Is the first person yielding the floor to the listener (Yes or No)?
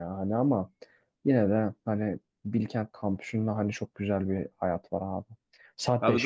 No